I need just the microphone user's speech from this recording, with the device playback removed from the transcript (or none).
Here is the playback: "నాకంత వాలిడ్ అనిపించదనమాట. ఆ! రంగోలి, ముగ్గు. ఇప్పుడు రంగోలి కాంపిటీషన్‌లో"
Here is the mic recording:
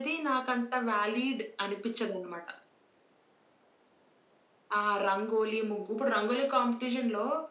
none